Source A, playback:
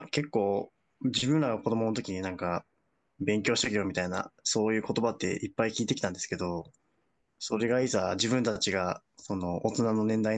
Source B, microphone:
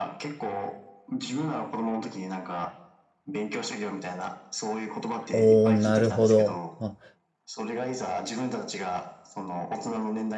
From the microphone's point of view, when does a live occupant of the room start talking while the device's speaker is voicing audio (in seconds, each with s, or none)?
5.3 s